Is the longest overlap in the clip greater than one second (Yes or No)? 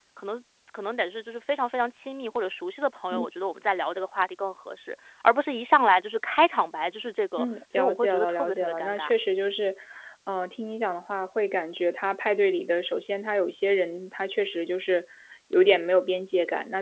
Yes